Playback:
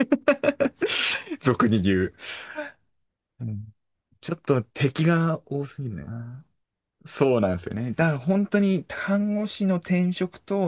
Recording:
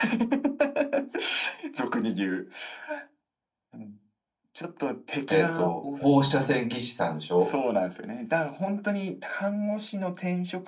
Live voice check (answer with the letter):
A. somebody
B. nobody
A